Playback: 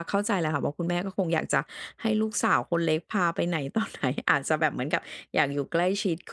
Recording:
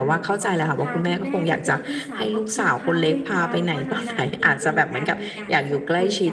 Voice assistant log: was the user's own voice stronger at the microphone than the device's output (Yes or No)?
No